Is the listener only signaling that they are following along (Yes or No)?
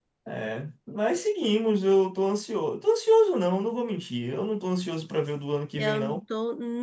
No